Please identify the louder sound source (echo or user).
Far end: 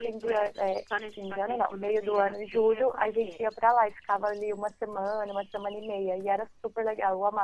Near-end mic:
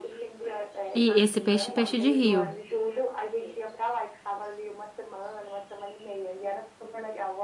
user